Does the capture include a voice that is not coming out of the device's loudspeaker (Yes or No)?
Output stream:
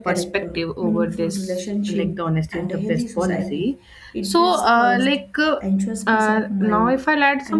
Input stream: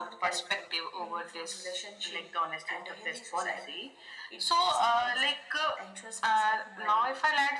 No